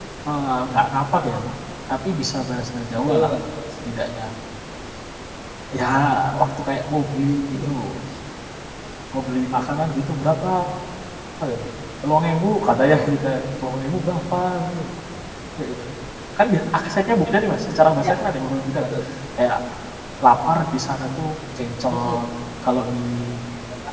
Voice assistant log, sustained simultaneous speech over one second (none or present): none